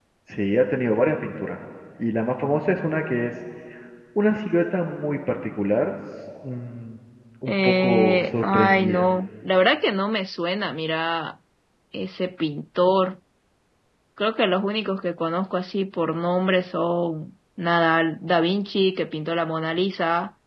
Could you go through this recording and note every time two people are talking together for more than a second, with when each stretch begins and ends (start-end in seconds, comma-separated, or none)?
7.5-9.1